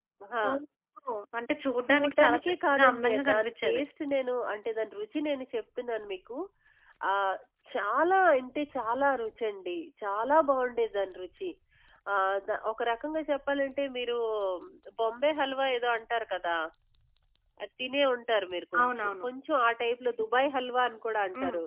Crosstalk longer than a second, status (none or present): present